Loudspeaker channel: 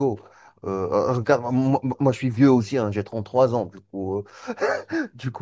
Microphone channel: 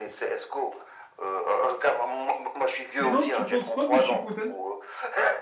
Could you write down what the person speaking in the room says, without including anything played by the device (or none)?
Sinon, tu penses quoi de Chipotle?